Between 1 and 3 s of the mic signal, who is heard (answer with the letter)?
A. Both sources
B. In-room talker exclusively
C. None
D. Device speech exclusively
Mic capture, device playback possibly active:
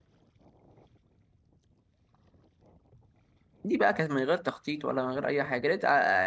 C